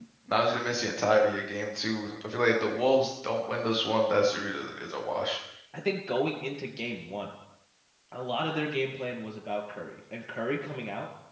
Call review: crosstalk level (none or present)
none